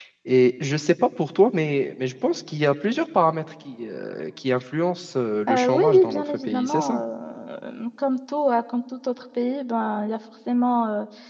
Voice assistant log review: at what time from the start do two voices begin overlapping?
5.5 s

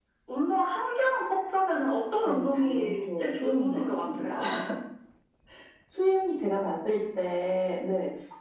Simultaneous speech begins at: 2.2 s

